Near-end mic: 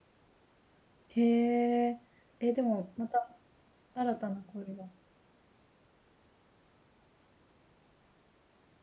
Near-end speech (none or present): present